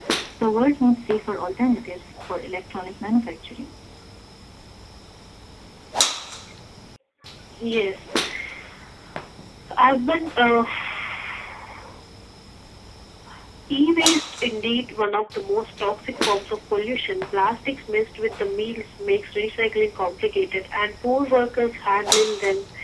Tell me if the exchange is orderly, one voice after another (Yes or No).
Yes